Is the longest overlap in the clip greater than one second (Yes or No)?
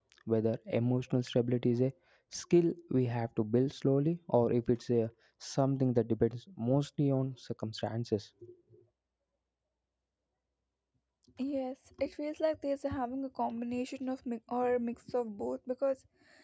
No